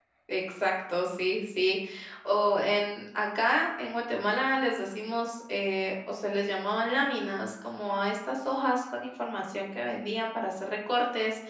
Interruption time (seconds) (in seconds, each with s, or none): none